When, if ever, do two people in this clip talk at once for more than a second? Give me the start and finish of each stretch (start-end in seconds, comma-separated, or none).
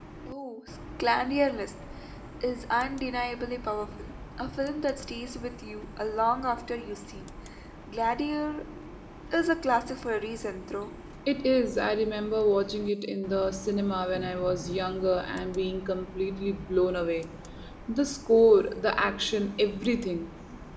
none